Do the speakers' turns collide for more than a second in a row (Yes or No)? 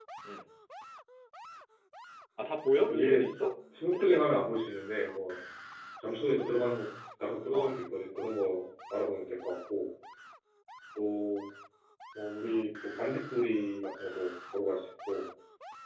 No